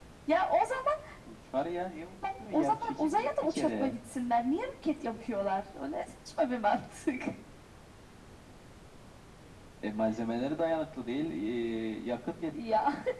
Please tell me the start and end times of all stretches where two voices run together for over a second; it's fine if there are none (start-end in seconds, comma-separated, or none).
2.5-4.0